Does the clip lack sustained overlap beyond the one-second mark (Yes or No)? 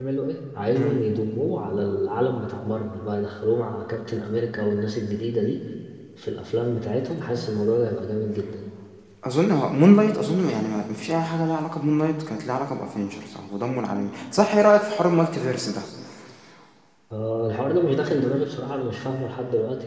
Yes